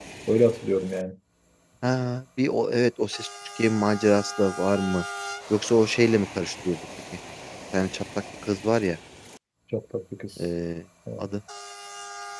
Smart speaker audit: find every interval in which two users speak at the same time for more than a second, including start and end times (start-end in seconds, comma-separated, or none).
none